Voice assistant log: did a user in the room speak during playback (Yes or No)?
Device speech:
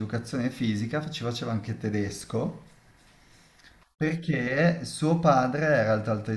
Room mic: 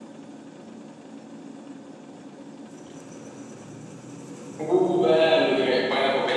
Yes